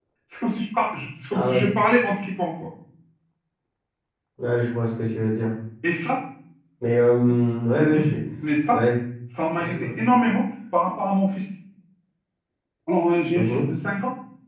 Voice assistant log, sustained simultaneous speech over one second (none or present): none